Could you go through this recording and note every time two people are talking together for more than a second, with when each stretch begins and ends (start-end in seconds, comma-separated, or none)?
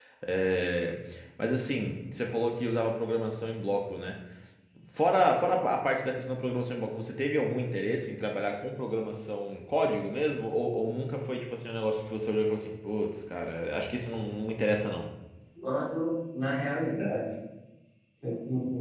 none